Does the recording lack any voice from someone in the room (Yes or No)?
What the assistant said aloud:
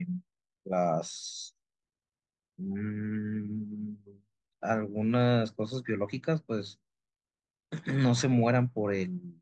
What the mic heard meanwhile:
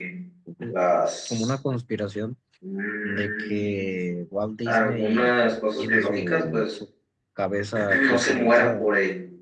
No